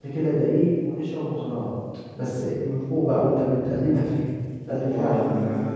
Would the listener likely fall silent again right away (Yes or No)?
No